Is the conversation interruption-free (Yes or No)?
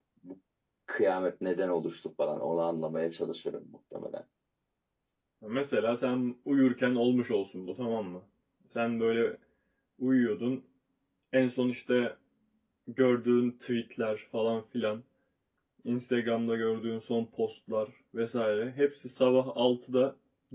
Yes